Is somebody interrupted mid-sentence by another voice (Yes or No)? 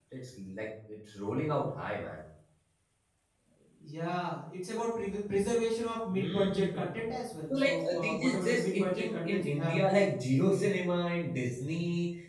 Yes